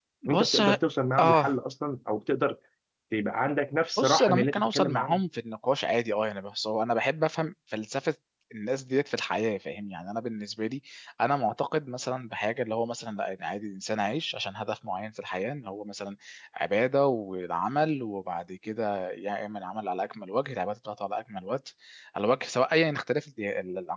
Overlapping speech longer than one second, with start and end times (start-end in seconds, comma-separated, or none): 4.0-5.2